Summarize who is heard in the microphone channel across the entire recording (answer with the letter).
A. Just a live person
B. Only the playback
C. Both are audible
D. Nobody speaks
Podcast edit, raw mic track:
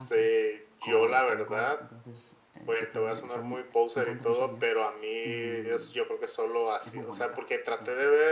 C